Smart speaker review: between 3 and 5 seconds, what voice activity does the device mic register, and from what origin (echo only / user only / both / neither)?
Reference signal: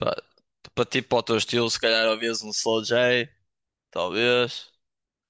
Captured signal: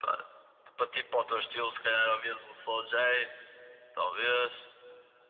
echo only